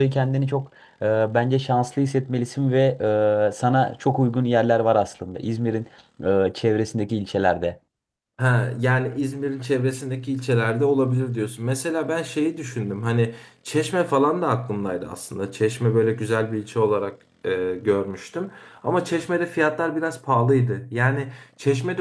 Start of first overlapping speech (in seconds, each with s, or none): none